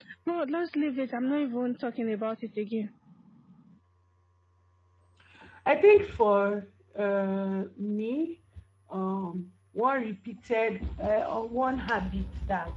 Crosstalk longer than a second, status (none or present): none